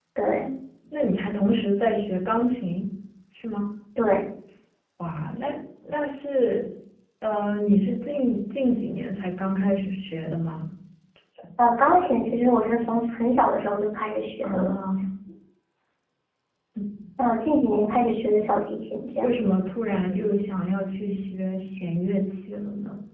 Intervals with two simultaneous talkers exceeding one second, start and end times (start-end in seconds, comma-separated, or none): none